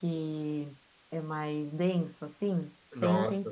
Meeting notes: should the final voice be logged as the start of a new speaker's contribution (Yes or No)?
Yes